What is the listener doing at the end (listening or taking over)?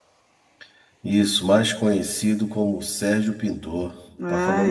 taking over